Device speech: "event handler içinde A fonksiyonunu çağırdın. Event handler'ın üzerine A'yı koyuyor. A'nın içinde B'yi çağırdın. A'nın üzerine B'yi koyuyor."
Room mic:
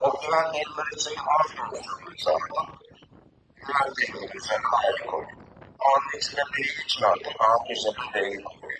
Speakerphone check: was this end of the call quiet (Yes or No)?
Yes